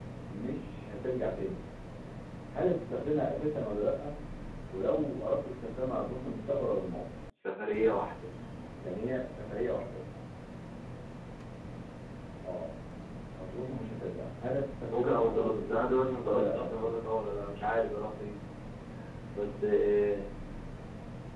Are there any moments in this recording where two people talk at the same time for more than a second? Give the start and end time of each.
14.9-16.9

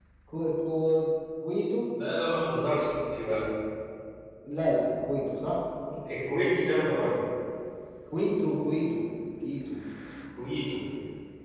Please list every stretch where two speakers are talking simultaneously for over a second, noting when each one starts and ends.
none

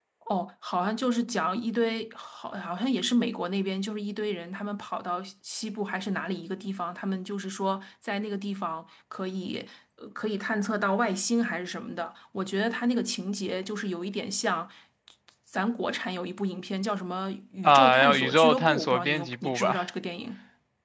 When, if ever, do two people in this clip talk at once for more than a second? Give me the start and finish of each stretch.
17.6-19.8

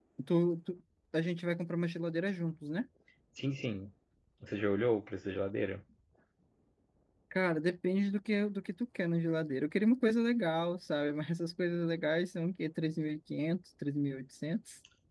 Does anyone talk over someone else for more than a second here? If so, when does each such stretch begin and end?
none

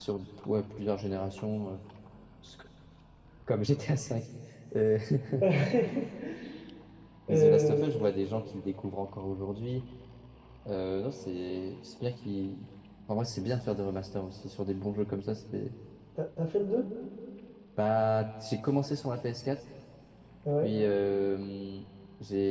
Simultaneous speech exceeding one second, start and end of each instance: none

